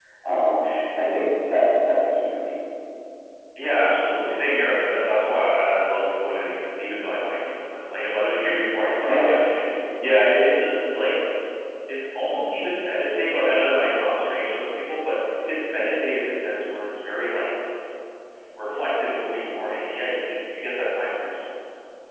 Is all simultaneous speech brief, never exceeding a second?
Yes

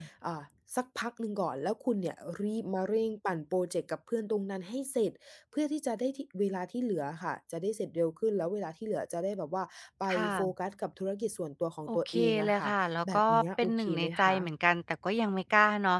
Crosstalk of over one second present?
Yes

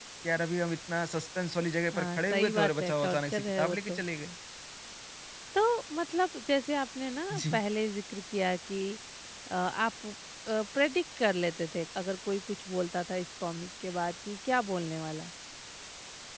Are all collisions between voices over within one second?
No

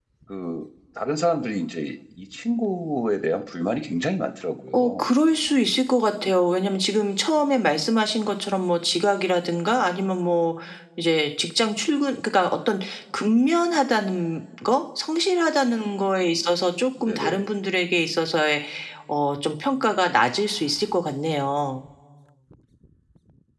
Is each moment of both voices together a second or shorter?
Yes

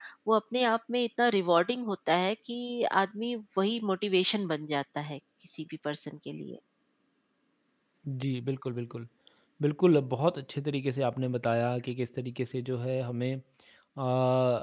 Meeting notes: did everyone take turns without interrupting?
Yes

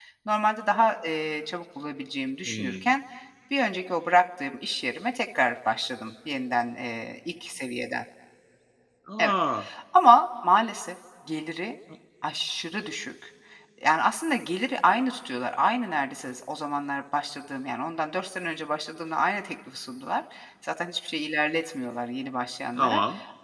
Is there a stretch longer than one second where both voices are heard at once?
No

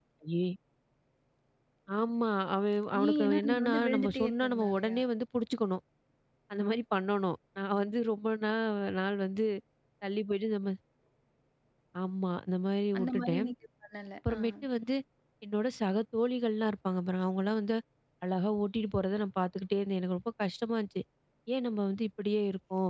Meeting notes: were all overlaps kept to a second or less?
No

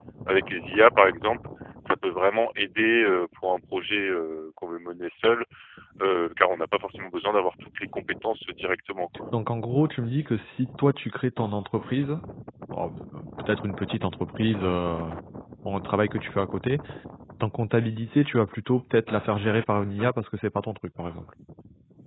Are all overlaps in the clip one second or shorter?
Yes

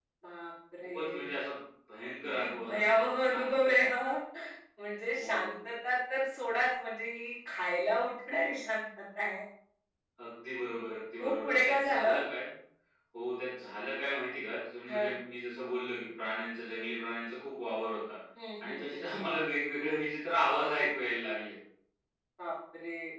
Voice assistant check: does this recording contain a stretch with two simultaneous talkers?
Yes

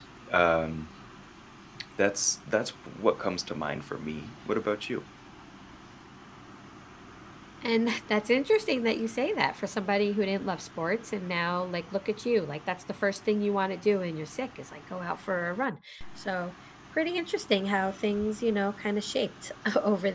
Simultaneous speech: No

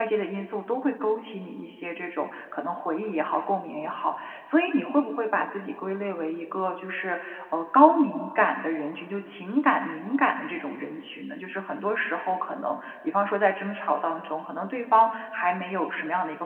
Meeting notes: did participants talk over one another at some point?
No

